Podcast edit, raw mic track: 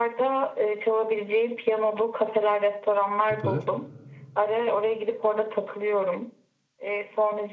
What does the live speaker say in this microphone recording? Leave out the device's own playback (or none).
süper.